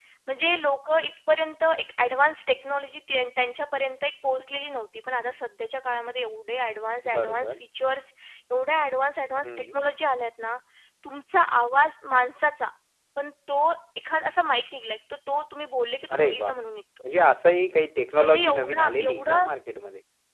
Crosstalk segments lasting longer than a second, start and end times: 18.2-19.4

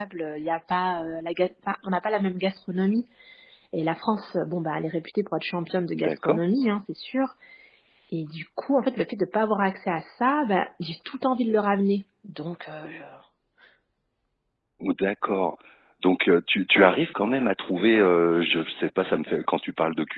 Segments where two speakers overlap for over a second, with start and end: none

